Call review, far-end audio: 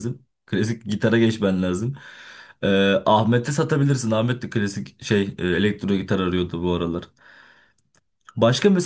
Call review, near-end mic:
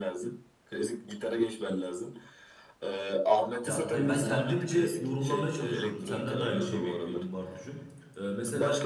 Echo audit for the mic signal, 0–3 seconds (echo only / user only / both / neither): echo only